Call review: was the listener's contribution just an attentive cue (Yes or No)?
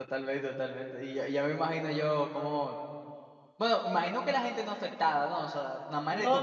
No